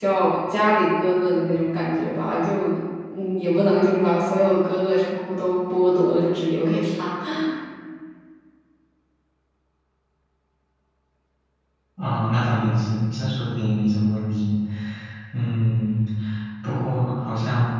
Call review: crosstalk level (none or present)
none